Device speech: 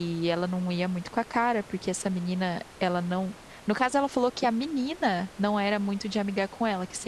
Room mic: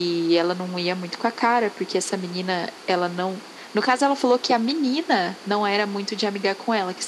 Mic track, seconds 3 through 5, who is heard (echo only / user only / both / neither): echo only